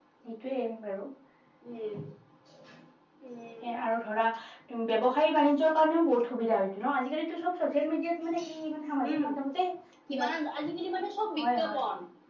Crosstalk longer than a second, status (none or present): none